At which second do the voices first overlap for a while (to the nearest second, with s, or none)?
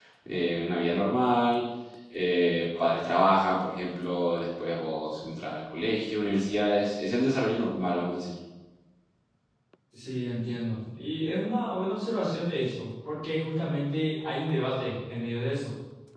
none